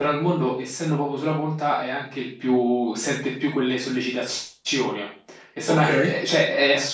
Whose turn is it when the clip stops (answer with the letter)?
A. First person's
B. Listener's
A